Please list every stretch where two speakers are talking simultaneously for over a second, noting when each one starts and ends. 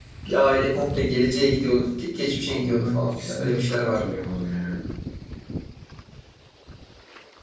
2.5-4.2

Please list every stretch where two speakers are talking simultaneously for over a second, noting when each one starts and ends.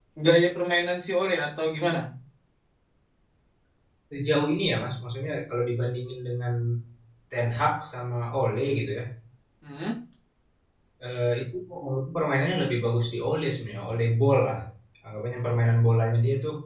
none

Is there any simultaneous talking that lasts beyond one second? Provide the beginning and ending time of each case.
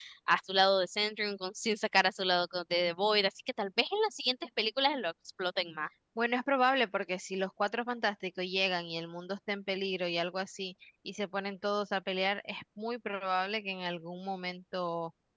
none

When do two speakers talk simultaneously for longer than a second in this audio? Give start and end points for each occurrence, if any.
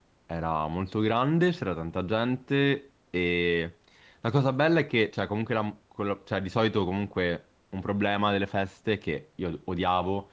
none

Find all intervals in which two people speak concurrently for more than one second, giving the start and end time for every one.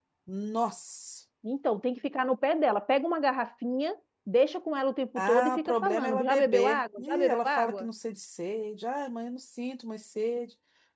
5.2-7.9

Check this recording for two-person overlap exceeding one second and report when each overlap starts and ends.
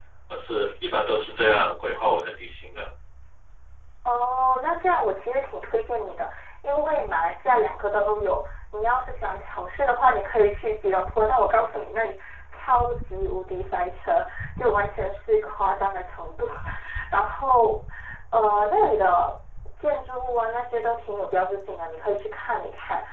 none

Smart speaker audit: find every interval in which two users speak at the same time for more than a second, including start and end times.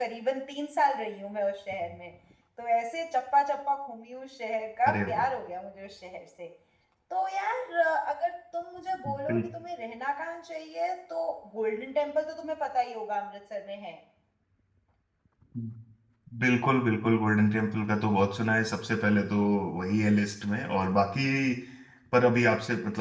none

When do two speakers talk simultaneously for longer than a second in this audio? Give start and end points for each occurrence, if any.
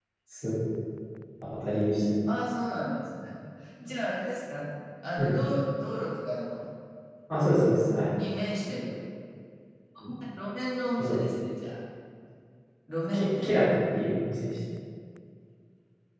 none

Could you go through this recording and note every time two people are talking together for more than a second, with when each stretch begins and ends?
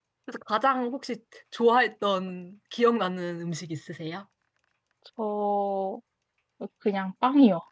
none

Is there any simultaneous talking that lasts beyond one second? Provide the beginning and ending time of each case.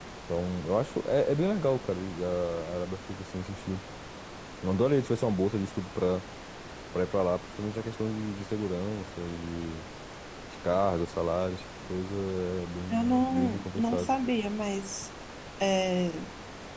12.9-14.2

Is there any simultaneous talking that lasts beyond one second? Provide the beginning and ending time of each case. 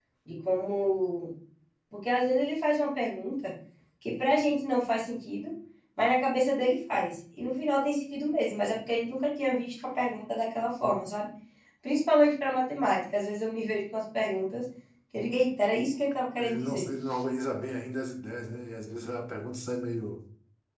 none

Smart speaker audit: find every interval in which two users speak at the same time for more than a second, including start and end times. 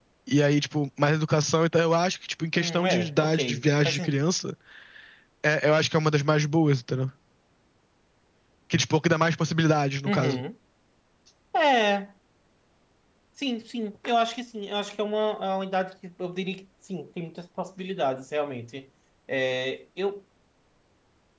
2.6-4.1

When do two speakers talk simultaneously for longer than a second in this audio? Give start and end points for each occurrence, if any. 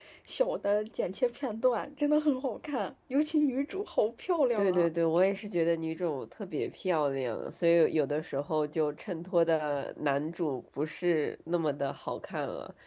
none

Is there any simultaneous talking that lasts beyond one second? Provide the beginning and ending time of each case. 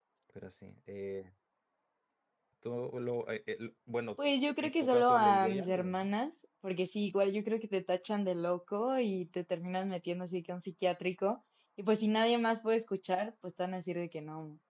4.6-6.1

